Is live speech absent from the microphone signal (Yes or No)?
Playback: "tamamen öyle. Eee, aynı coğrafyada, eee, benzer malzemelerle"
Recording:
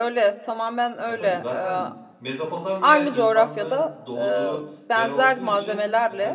No